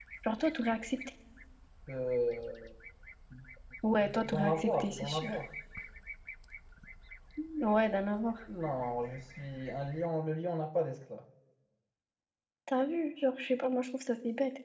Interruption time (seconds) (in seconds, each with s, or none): 4.0 s